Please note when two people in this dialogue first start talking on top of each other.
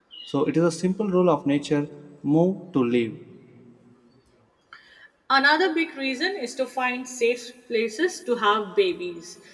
none

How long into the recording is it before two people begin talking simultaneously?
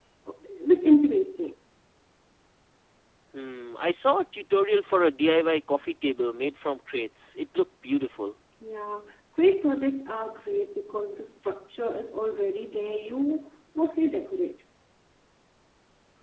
none

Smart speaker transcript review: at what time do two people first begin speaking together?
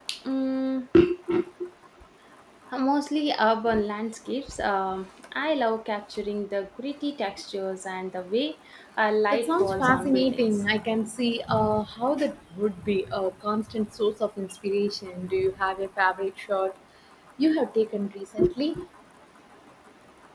9.3 s

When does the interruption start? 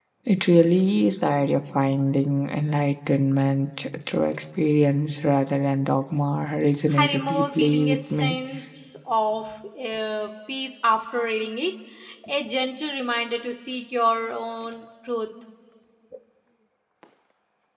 6.9 s

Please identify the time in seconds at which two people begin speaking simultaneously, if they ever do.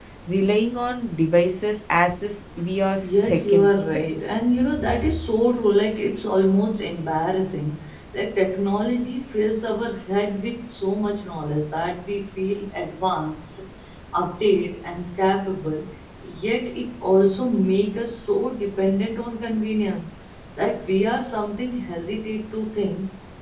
3.0 s

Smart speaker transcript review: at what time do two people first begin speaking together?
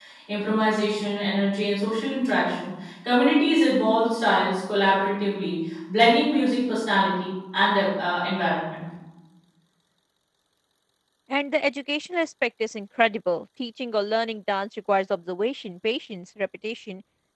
none

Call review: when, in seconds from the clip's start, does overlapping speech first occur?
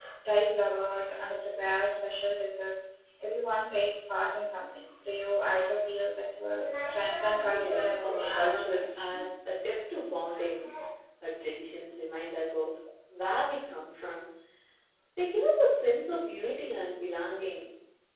7.5 s

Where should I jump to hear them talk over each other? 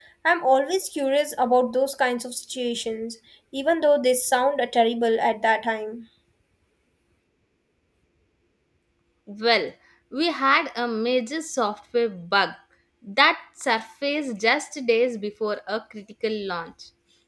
none

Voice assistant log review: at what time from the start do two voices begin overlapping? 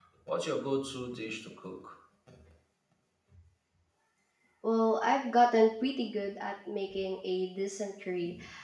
none

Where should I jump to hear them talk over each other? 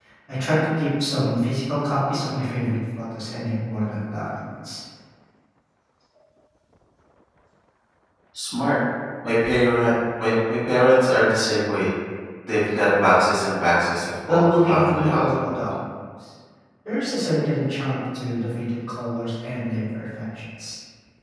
14.3 s

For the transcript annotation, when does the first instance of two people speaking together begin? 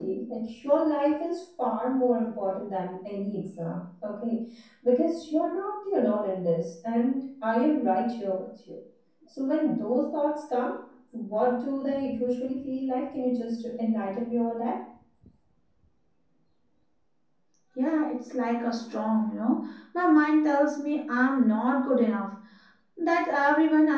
none

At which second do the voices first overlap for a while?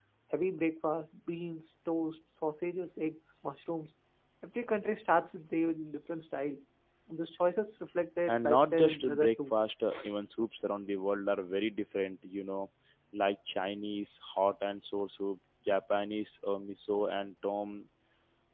8.3 s

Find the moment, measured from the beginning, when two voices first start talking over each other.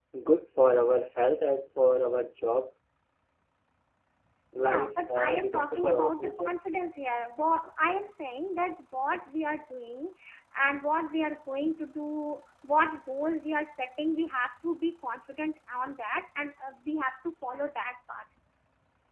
4.6 s

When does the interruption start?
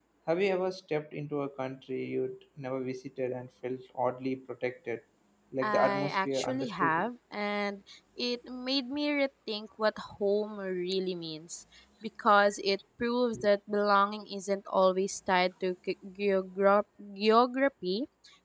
5.6 s

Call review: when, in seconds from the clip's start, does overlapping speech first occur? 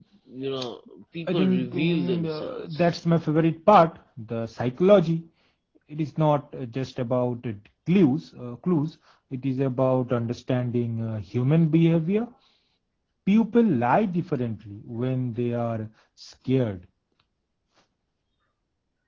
1.3 s

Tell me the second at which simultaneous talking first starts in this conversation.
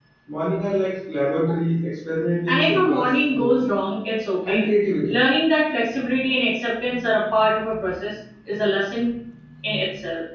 2.5 s

